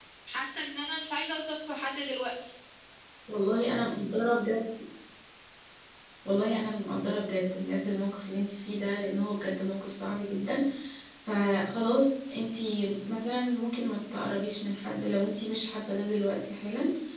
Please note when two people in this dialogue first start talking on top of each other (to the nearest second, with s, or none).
none